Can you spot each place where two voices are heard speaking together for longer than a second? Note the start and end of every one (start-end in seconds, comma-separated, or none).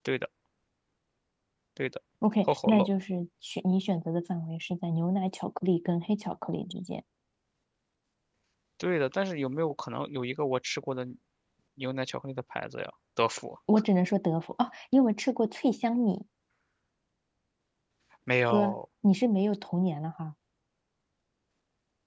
none